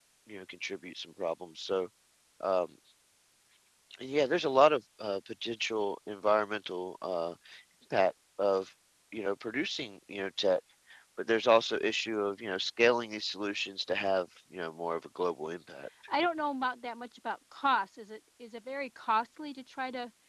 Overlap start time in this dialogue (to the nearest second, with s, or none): none